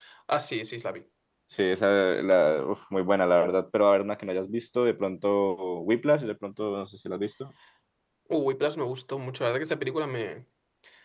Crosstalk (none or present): none